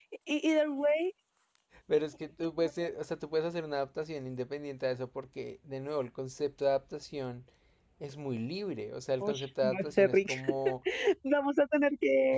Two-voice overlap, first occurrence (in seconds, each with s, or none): 9.2 s